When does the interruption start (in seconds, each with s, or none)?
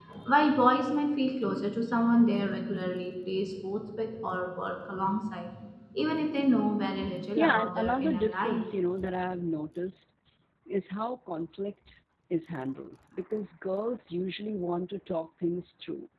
7.4 s